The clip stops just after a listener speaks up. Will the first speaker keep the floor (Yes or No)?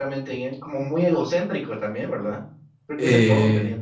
No